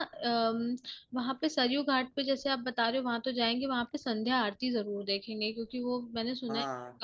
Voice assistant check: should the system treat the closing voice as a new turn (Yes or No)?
No